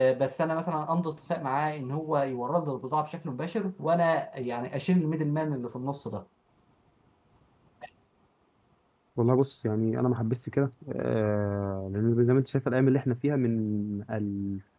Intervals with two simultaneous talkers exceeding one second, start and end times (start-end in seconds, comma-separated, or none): none